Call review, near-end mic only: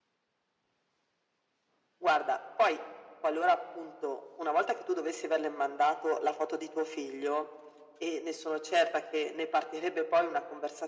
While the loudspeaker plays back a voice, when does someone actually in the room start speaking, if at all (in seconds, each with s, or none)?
none